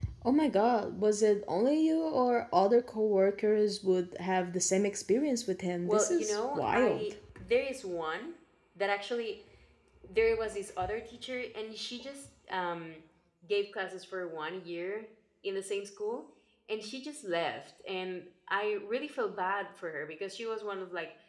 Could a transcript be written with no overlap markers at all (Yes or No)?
No